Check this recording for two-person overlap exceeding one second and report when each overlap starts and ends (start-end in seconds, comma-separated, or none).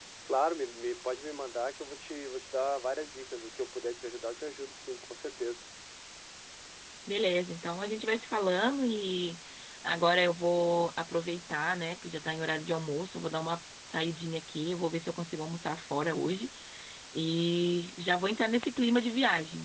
none